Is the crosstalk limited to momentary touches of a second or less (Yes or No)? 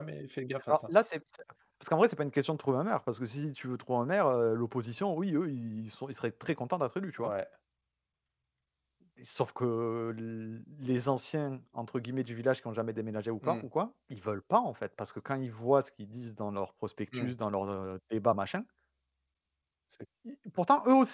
Yes